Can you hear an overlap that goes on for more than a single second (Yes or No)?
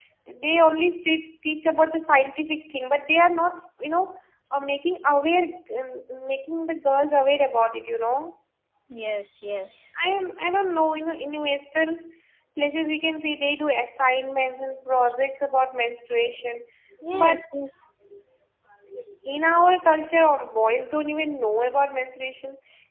No